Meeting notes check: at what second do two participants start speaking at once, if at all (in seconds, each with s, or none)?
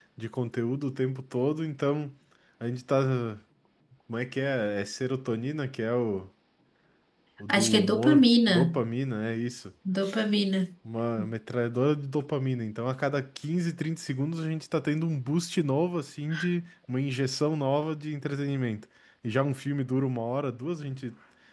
7.5 s